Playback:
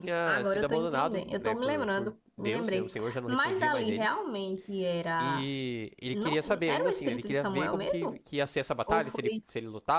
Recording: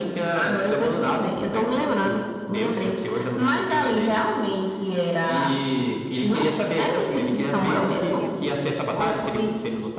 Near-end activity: present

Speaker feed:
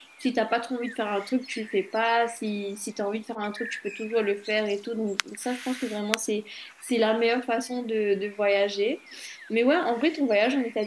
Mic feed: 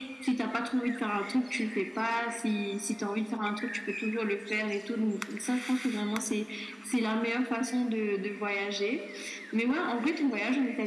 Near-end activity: none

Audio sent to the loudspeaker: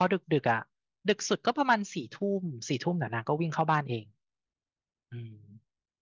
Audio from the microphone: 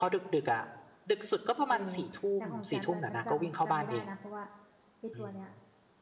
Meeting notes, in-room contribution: present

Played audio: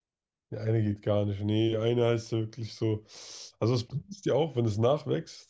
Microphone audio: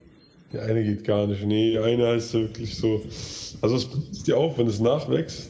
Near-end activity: none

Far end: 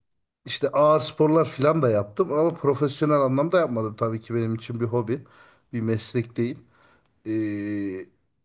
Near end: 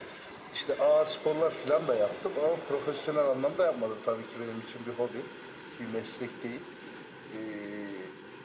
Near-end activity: none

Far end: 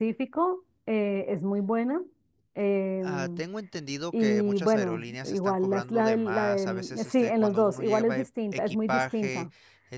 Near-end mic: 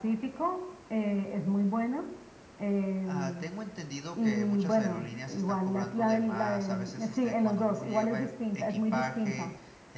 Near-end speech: none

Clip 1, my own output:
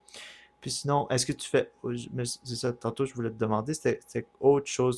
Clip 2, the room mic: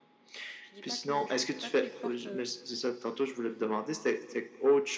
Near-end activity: present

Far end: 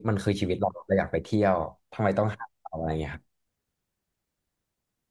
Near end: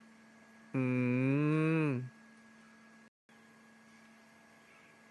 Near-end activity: present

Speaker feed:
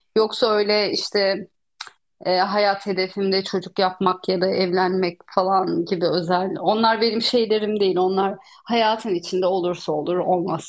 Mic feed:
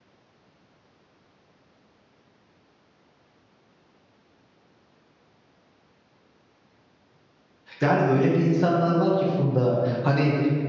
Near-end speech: present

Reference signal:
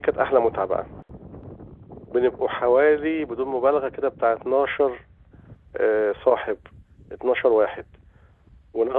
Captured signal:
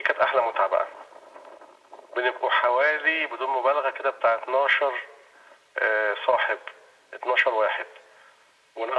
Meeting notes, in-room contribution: none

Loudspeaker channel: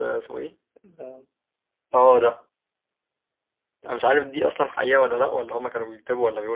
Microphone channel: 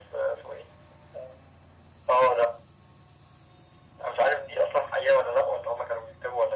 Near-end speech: none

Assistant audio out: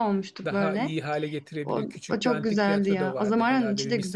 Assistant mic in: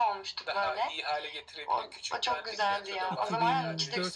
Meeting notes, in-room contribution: present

